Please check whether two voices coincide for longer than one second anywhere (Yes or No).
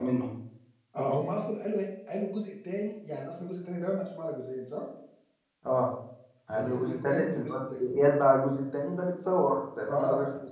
Yes